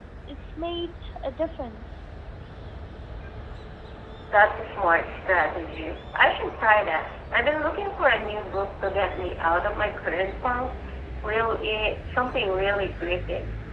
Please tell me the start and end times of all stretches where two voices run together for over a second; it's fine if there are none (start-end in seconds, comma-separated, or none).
none